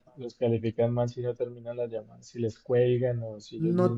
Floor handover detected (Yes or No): Yes